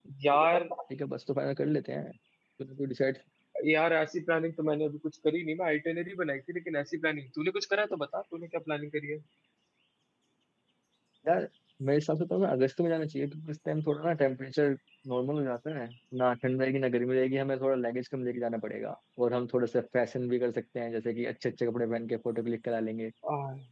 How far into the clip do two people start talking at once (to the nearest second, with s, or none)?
none